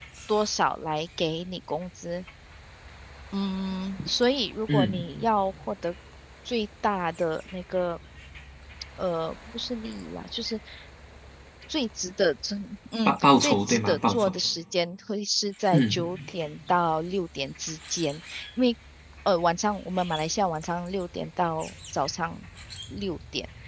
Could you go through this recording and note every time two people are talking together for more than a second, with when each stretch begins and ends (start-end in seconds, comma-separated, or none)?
13.1-14.3